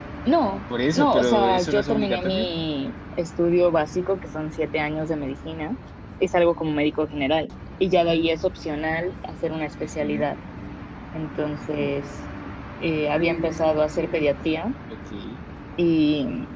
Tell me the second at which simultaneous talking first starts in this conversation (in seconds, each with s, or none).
0.9 s